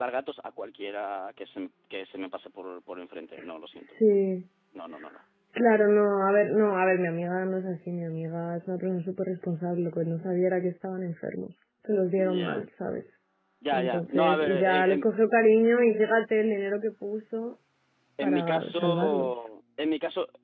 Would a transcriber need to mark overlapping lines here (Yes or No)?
Yes